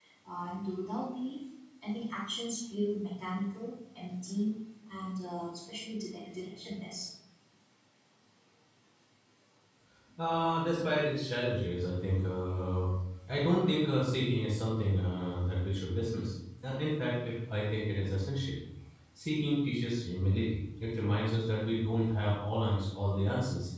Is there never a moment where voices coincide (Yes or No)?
Yes